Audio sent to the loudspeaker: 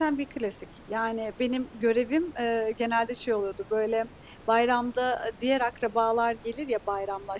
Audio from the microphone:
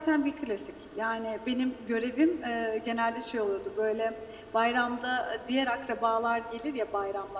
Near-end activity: none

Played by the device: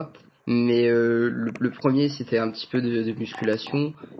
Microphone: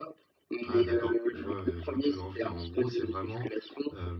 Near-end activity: present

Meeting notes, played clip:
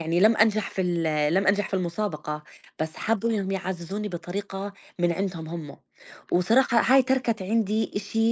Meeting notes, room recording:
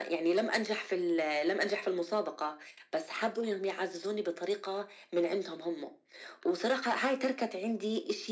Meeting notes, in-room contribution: none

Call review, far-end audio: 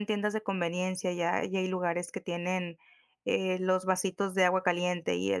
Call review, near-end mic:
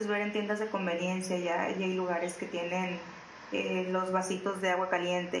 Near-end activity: none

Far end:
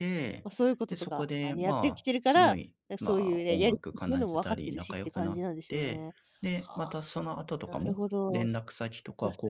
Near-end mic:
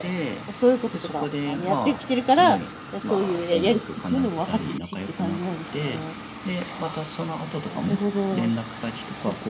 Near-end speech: none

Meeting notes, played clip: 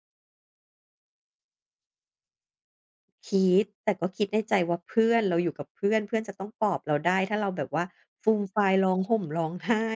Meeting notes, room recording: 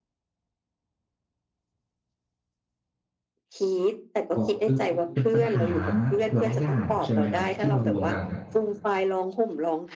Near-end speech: present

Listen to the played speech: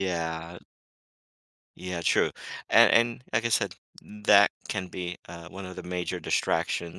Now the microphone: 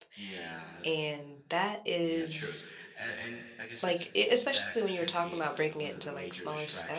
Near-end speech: present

